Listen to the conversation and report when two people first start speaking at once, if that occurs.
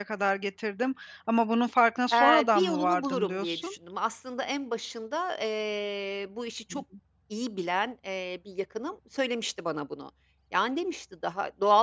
2.1 s

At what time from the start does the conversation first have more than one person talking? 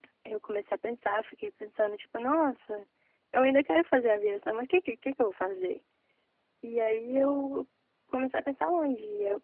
none

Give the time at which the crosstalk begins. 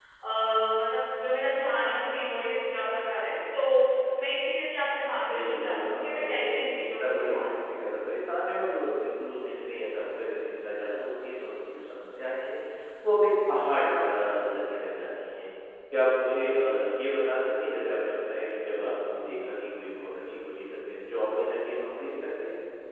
5.3 s

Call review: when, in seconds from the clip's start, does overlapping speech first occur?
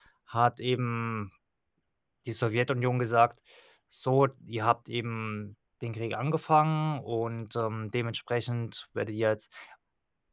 none

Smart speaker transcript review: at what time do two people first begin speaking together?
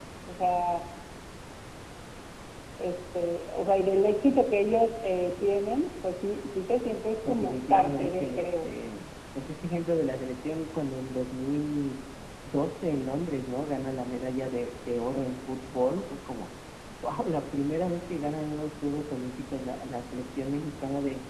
7.2 s

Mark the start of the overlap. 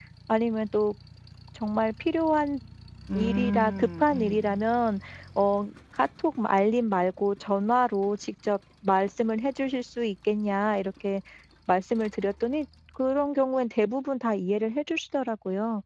3.2 s

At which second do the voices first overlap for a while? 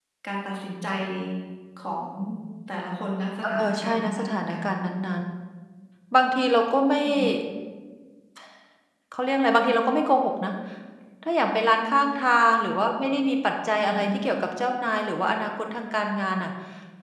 3.4 s

